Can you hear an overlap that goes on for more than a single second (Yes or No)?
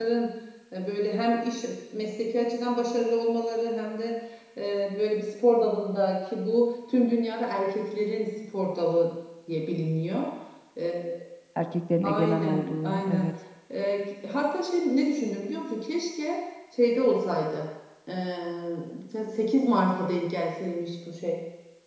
Yes